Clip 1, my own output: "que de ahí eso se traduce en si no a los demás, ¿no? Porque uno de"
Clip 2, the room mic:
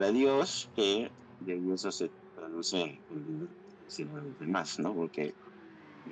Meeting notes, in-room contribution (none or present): none